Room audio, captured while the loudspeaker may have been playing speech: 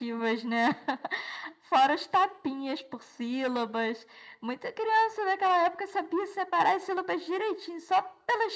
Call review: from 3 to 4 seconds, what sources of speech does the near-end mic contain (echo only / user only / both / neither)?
echo only